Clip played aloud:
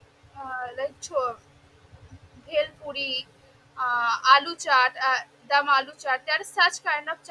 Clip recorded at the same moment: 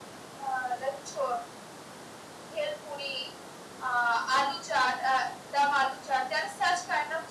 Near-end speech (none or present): none